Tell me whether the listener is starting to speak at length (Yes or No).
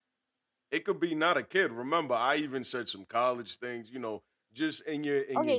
Yes